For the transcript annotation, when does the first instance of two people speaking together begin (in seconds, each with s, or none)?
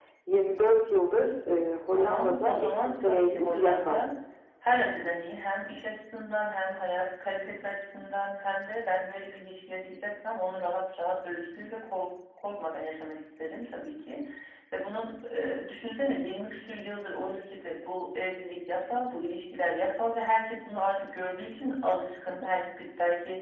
1.9 s